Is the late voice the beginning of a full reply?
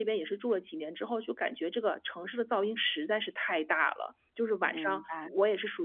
No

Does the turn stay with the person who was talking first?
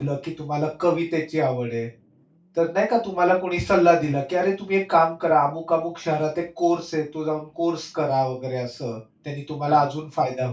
Yes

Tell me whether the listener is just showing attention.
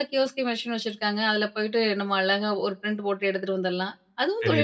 No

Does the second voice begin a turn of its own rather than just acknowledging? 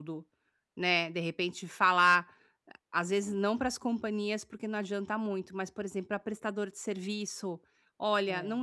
No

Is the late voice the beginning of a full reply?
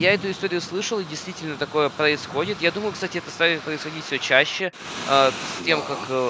No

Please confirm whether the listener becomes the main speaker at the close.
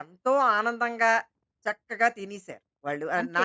Yes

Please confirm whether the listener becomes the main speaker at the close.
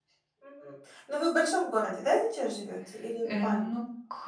Yes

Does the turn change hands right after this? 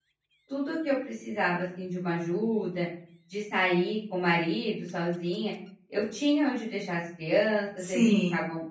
No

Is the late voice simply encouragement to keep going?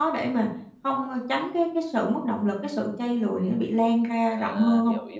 No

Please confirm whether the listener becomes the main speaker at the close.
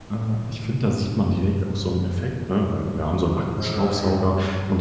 No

